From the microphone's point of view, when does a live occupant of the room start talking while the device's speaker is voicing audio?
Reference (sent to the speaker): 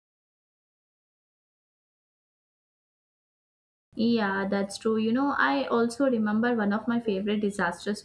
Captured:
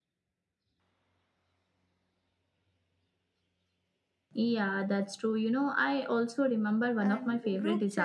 7.0 s

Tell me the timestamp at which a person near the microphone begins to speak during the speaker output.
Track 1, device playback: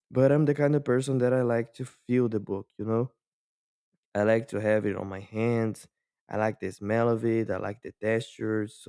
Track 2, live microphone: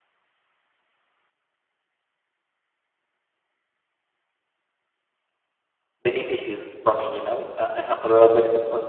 6.0 s

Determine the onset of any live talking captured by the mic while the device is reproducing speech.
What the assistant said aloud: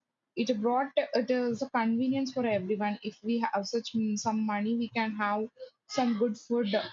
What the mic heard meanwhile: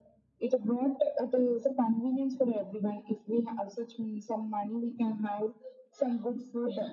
none

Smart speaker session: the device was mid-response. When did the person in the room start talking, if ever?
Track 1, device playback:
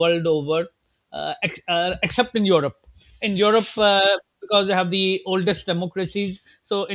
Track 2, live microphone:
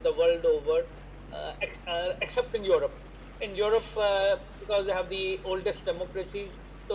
none

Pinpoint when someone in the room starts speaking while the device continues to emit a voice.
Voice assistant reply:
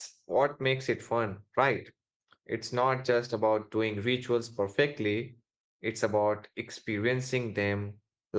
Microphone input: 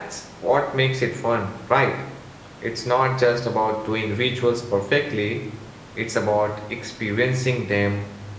none

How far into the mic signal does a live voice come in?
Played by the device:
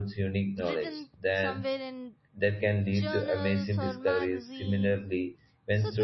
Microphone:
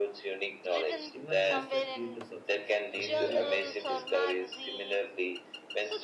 1.1 s

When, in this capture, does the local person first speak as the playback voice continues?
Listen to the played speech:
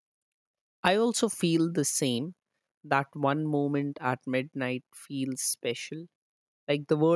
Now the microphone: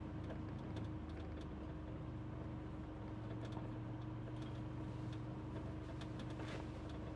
none

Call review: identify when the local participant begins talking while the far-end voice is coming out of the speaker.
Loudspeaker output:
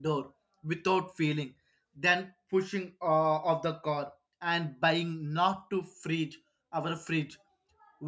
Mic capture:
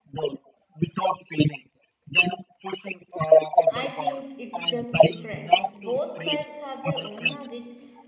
3.7 s

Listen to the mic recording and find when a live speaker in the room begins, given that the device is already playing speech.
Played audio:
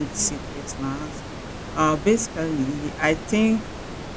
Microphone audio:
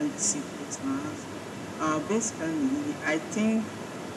none

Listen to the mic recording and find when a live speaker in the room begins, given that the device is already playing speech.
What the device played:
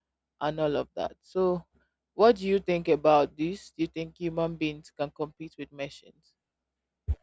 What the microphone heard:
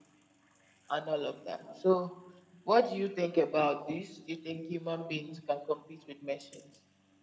none

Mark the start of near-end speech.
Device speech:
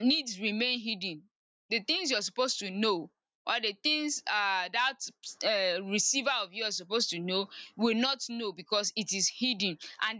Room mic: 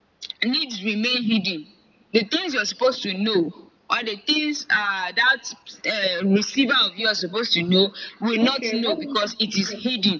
8.4 s

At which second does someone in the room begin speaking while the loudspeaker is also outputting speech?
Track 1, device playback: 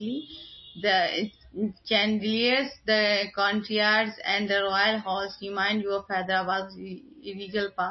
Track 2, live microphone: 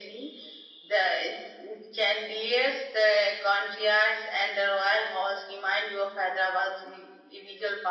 none

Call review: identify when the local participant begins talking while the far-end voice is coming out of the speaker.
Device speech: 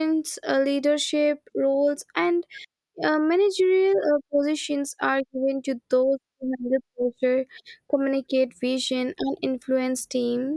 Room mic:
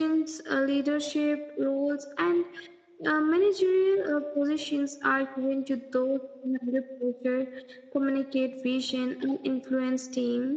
none

